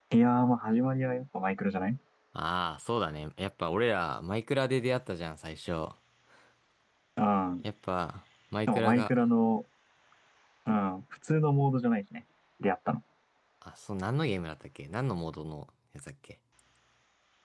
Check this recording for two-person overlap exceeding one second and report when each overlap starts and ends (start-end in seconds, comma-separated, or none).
none